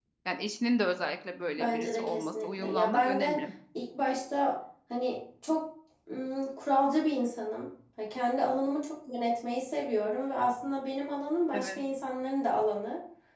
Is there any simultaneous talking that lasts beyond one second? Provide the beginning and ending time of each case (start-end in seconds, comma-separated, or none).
1.6-3.4